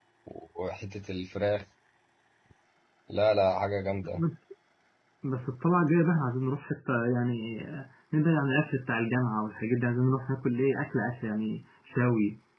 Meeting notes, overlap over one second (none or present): none